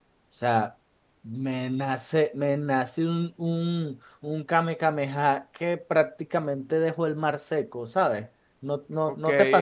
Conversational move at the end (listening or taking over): taking over